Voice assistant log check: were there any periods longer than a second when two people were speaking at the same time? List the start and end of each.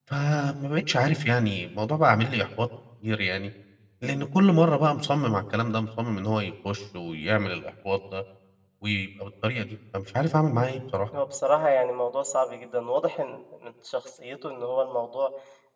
none

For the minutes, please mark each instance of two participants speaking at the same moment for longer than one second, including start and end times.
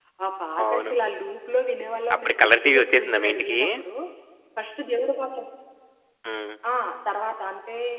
2.1-3.6

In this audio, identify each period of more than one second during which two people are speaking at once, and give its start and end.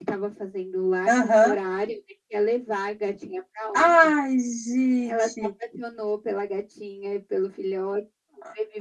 none

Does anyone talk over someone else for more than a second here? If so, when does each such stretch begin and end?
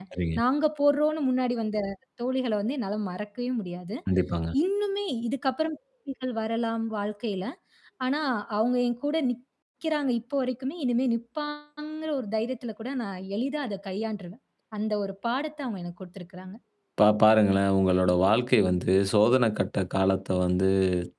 none

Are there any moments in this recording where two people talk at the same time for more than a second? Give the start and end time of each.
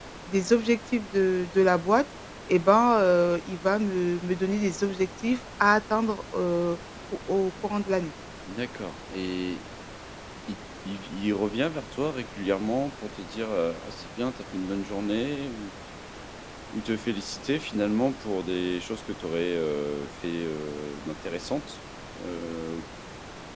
none

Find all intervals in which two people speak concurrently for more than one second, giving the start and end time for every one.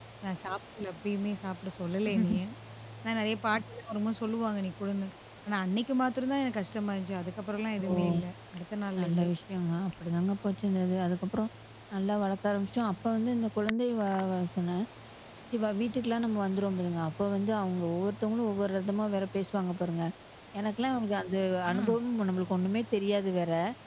none

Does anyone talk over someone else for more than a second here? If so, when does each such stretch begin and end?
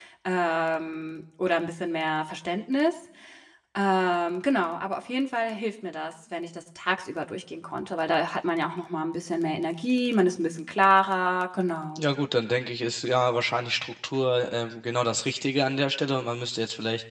none

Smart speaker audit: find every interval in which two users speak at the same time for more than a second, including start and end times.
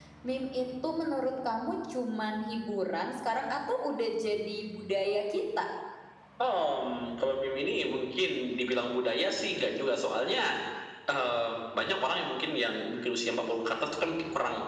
none

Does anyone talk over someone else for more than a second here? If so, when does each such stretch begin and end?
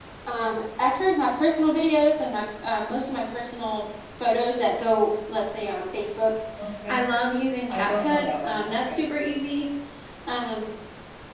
7.7-9.0

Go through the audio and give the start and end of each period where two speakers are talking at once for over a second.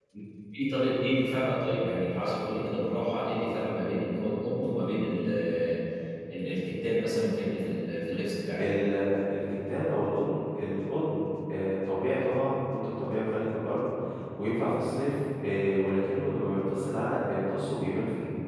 none

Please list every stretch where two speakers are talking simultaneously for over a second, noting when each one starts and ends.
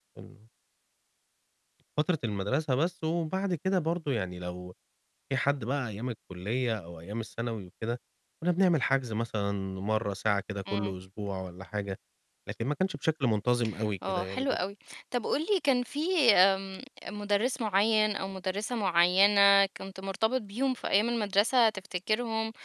none

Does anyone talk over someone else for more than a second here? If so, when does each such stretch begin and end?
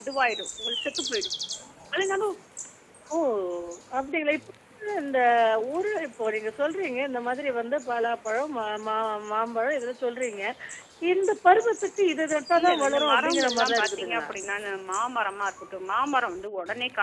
12.6-14.3

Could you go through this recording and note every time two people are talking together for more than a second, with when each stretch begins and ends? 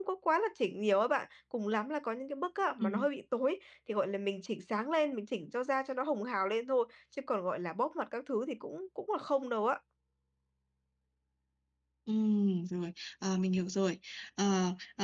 none

